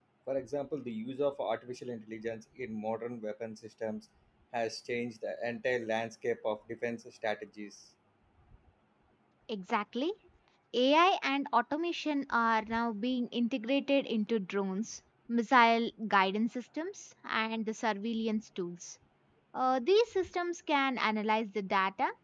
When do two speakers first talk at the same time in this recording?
none

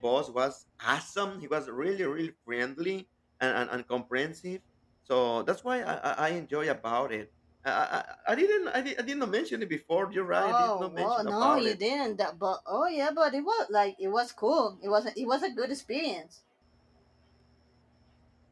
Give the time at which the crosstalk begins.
10.3 s

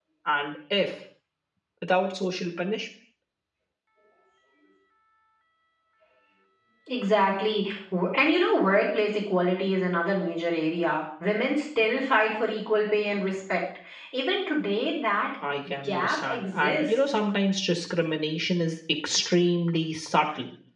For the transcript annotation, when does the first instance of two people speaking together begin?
15.8 s

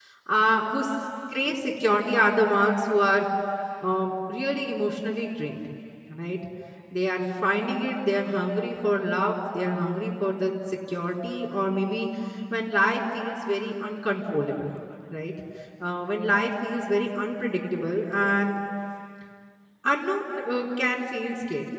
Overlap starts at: none

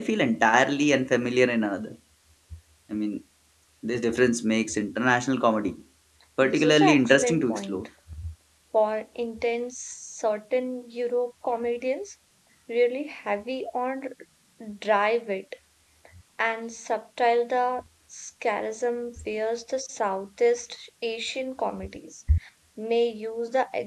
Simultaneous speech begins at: 6.4 s

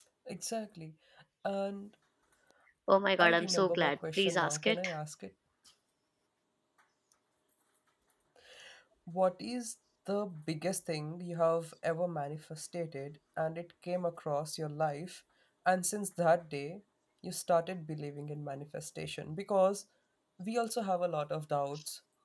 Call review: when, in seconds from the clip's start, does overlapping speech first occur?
3.2 s

